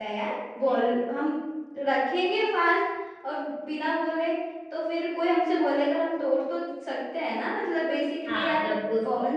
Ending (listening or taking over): taking over